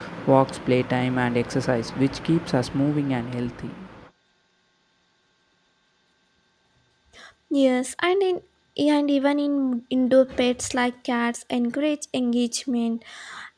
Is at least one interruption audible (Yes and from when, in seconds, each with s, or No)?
No